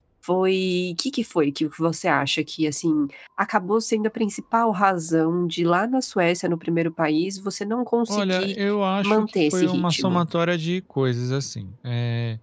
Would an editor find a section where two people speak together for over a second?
Yes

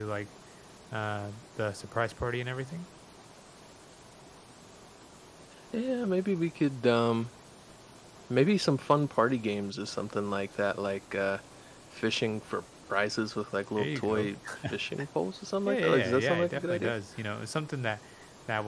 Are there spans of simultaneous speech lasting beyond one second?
Yes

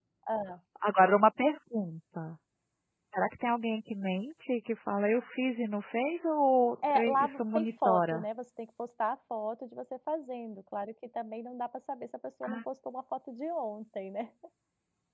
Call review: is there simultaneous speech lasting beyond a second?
Yes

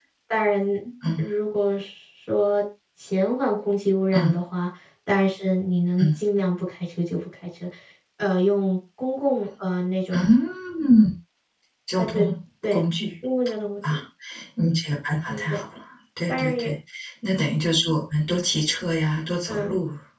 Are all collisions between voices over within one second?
Yes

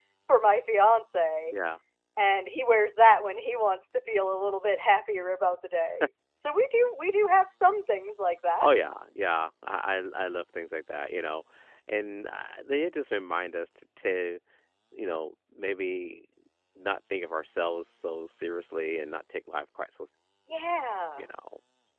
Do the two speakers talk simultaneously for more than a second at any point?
No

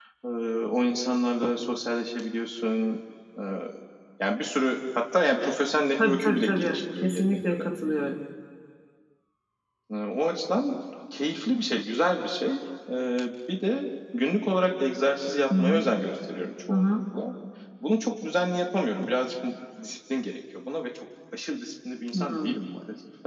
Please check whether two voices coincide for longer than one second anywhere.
Yes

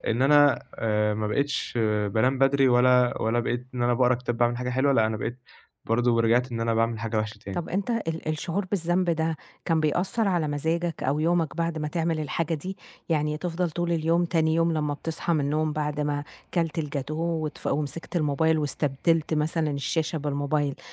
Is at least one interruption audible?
No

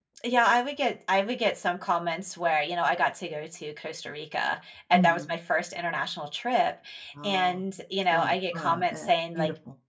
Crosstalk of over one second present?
Yes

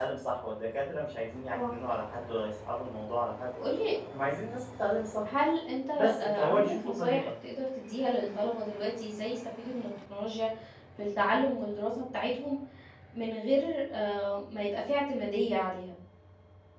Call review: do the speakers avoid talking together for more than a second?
No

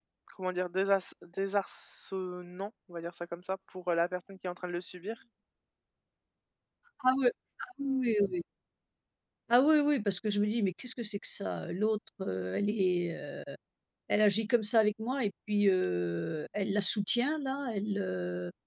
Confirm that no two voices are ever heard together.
Yes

